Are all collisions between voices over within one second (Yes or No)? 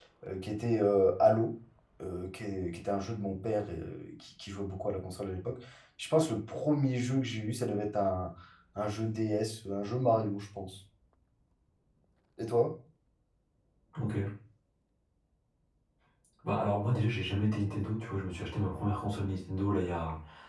Yes